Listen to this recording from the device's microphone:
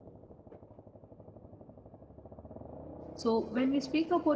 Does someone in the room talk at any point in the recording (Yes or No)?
Yes